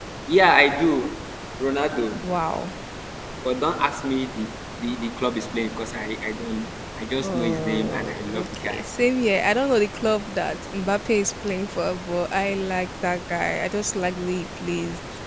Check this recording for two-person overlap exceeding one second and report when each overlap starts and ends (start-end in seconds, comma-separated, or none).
7.2-8.8